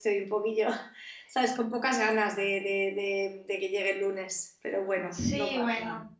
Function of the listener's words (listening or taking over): taking over